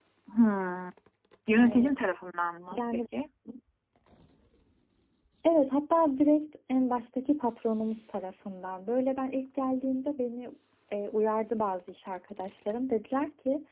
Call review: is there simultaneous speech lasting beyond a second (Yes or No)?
No